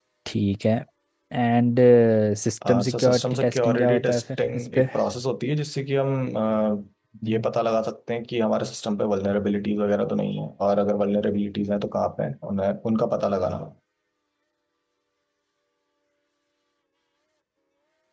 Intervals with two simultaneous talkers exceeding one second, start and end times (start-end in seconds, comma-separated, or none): 2.9-4.9